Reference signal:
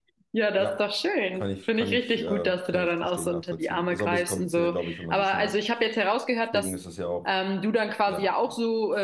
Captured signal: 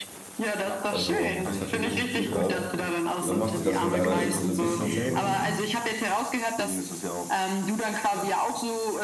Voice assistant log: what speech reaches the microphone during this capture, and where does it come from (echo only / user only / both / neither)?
both